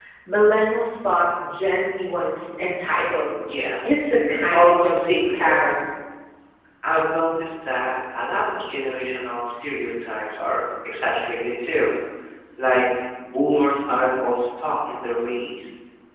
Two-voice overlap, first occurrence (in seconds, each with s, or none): 4.3 s